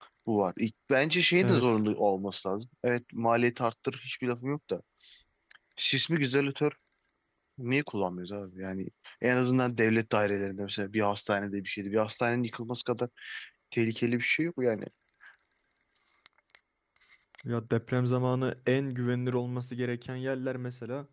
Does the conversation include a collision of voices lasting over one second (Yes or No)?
No